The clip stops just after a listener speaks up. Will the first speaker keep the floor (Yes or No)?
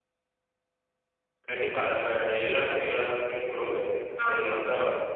Yes